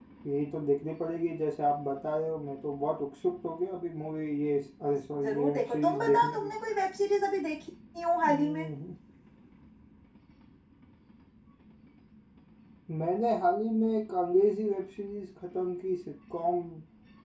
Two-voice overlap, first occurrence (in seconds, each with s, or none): 5.2 s